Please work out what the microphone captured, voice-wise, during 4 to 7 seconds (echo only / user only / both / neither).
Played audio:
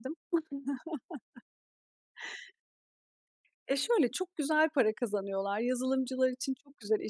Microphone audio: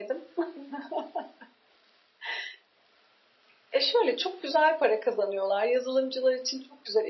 echo only